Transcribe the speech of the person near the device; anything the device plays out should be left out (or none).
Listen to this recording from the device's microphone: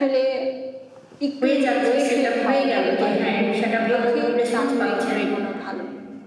হয়ে যাচ্ছে, সেটআপ হয়ে গেলো, যে হ্যাঁ, রিক্সাটা ভালো রেসপন্স পাচ্ছেন